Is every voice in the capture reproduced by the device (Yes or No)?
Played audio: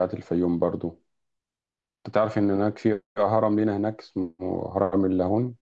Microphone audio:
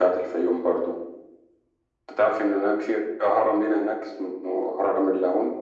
Yes